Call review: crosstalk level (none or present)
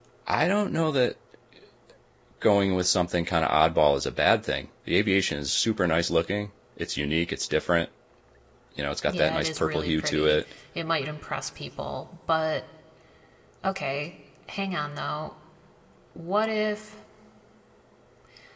present